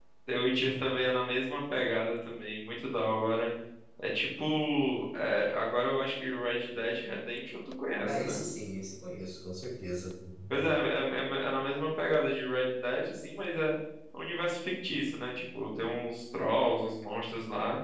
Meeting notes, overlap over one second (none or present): none